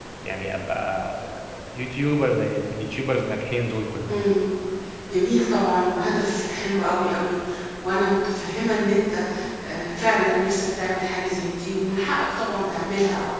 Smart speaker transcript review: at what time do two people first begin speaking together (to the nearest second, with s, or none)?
none